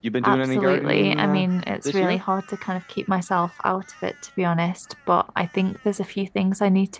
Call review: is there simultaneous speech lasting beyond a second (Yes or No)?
Yes